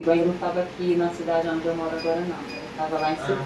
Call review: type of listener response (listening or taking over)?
listening